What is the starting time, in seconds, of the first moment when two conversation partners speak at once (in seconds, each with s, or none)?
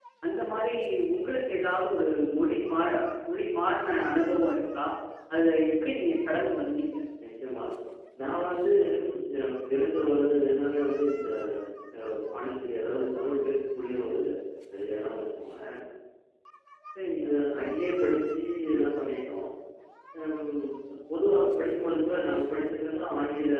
none